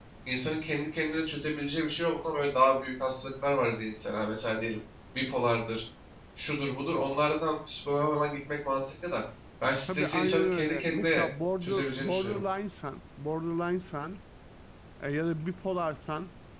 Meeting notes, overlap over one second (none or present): present